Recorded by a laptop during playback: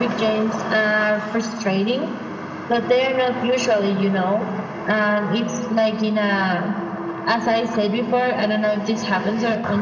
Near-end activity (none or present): none